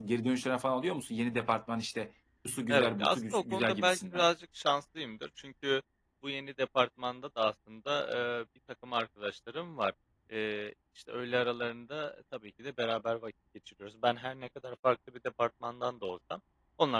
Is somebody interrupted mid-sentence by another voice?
Yes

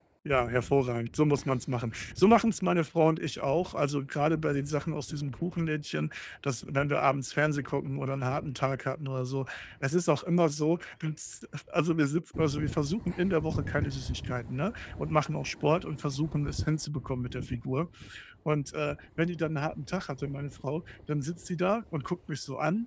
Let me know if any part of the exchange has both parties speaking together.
No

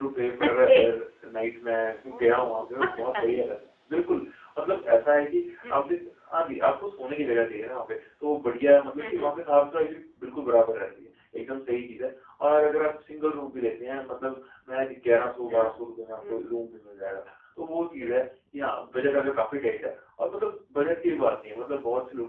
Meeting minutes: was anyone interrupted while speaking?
Yes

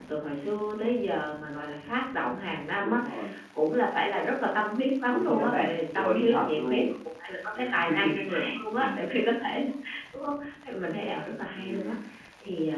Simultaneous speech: Yes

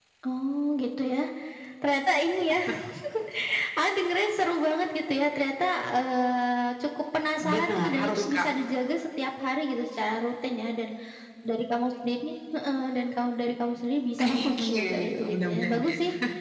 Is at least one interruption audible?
Yes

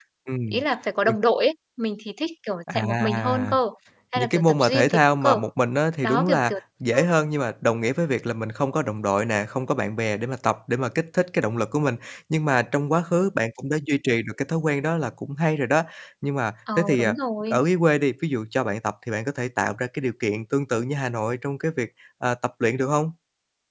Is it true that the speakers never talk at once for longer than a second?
No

